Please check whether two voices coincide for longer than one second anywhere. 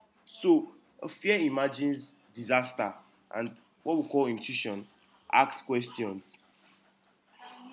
No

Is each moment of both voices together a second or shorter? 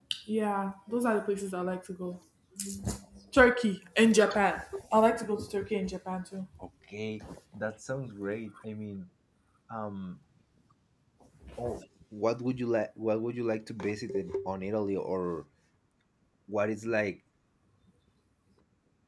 Yes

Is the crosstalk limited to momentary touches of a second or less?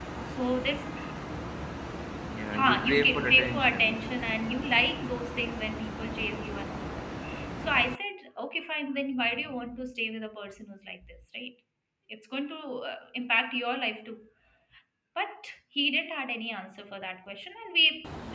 No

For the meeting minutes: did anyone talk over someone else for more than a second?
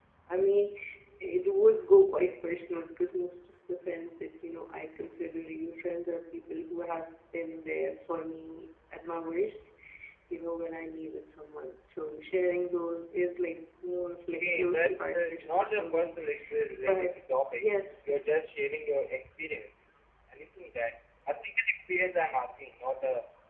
Yes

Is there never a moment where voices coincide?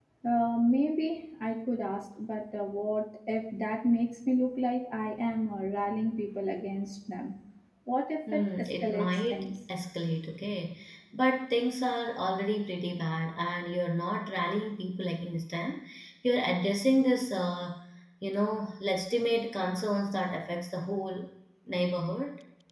No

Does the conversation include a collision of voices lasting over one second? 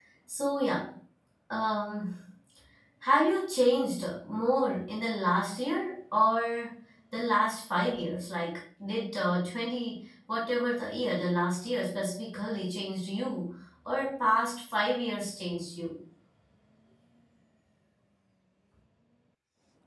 No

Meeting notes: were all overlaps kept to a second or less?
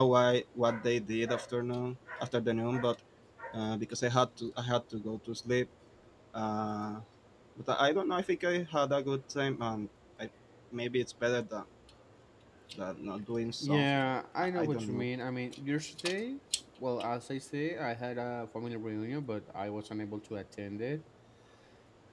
No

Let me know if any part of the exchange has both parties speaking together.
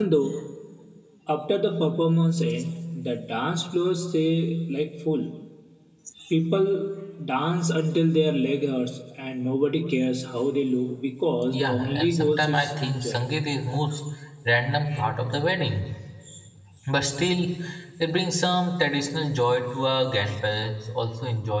Yes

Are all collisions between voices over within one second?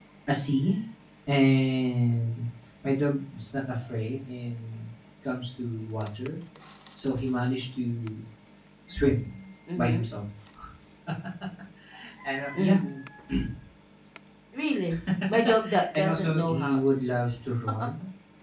No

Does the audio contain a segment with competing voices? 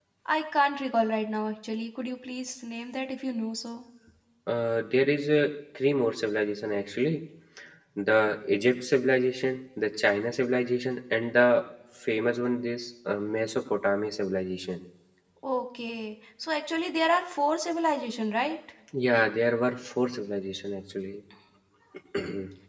No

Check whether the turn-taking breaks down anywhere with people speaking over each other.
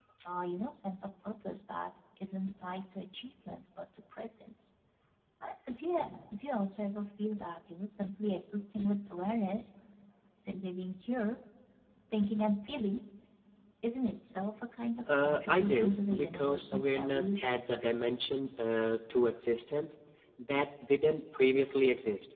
Yes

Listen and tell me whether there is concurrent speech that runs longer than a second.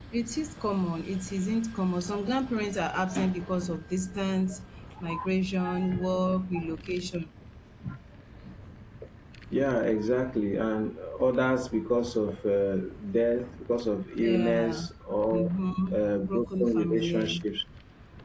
Yes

